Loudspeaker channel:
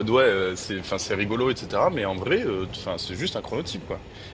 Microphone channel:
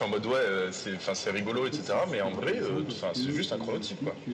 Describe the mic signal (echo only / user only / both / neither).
both